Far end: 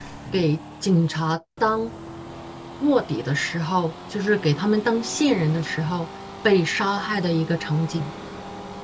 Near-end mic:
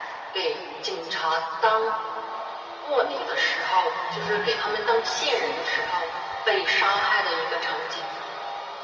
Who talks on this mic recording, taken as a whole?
both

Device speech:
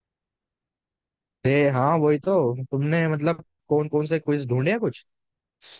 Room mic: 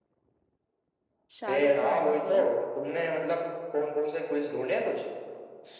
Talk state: both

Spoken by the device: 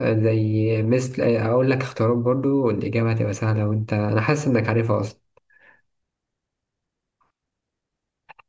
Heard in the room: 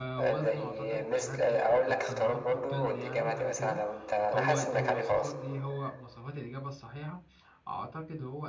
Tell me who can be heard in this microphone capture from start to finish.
both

